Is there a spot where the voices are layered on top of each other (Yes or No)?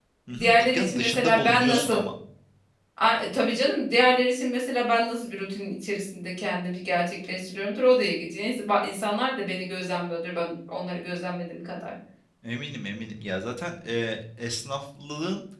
Yes